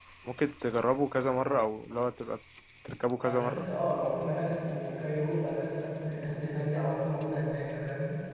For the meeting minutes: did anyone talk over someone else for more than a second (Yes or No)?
No